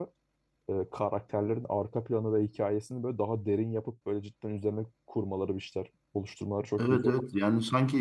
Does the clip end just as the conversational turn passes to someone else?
Yes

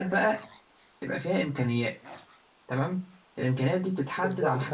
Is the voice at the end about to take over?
Yes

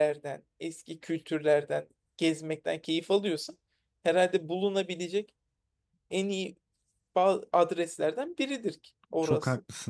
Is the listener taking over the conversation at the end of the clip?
Yes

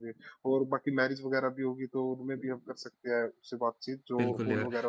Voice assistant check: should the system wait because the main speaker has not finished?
No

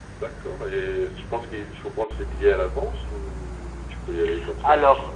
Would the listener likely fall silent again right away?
No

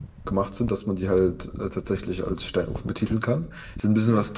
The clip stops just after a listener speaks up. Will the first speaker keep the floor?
Yes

